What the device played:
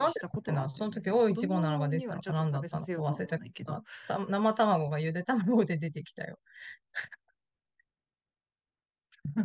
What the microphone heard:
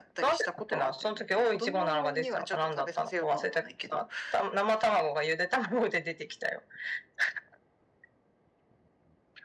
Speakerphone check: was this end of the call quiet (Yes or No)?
Yes